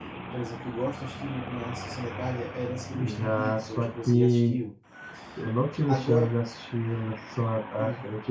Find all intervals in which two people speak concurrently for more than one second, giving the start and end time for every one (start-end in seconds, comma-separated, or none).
3.1-4.6